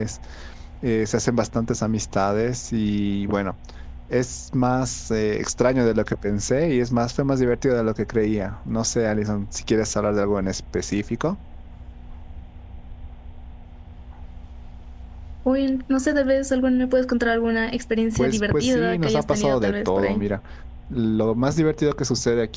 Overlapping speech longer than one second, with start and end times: 18.2-20.3

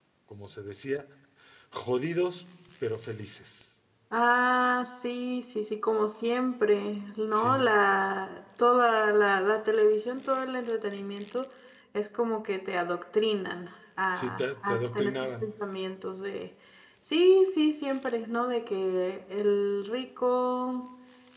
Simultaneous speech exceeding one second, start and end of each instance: 14.1-15.5

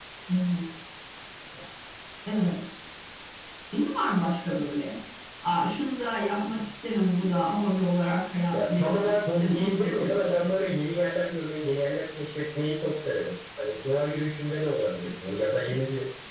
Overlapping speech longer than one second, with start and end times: 8.5-10.6

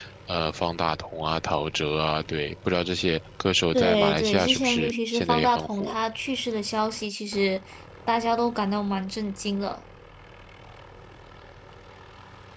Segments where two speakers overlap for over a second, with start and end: 3.7-5.9

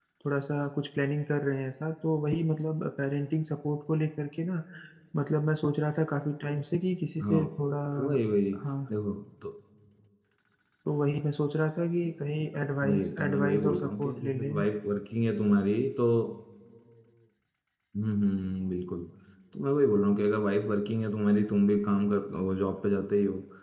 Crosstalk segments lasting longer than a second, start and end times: 12.8-14.6

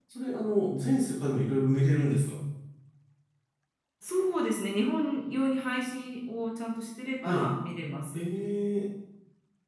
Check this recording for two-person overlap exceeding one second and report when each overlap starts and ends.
none

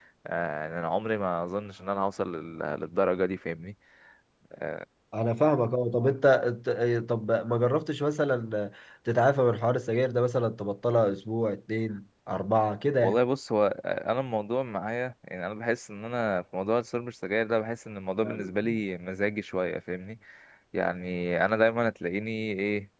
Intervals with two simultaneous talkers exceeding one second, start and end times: none

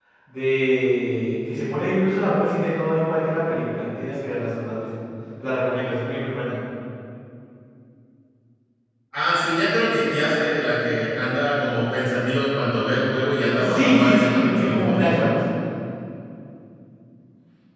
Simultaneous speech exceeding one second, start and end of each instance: 13.7-15.3

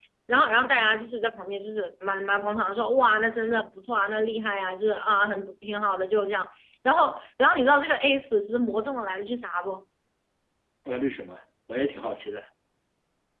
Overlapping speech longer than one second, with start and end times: none

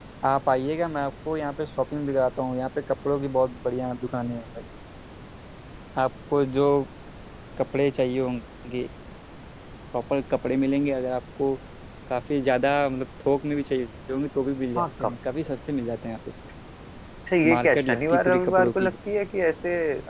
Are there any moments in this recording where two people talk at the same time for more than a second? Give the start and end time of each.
17.5-18.9

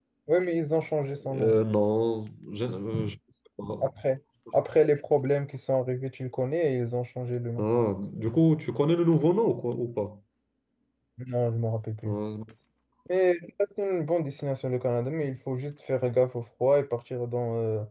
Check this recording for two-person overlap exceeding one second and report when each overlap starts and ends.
none

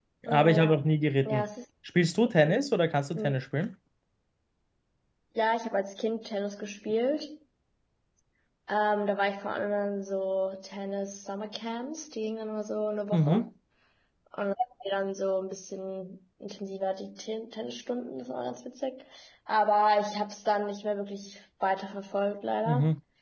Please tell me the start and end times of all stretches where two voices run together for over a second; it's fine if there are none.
none

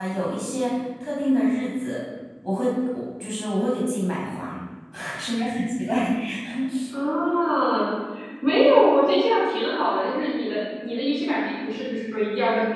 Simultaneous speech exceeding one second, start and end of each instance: none

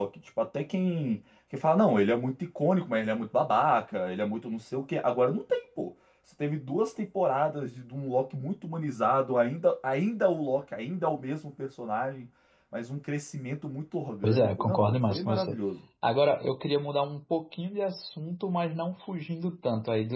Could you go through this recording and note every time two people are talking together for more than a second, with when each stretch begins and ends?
14.2-15.6

